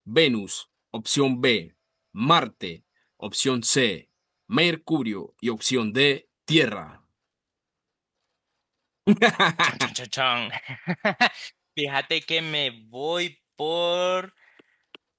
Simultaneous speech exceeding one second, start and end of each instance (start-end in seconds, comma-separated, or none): none